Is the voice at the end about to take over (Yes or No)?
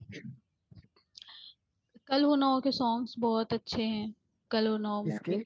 No